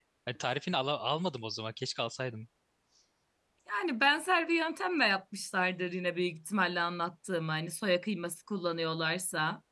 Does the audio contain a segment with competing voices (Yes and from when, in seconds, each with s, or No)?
No